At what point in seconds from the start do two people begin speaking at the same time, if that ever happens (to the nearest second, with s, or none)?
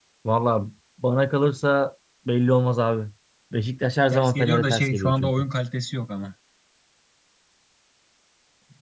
4 s